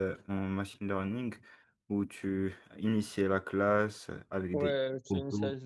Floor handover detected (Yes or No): Yes